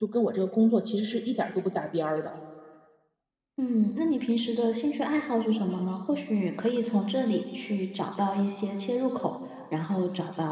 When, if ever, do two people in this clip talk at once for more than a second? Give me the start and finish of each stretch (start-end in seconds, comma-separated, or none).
none